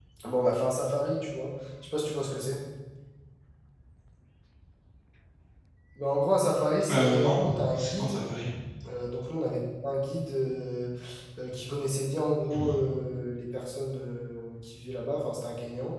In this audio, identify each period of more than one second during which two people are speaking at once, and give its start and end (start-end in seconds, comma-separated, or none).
6.9-8.2